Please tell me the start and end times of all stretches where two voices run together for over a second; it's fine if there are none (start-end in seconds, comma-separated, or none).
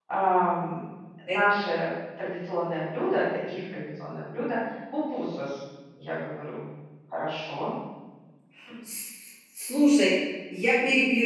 none